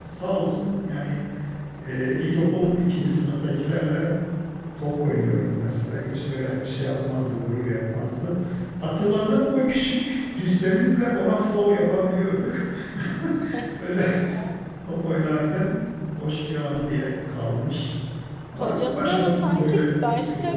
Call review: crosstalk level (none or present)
present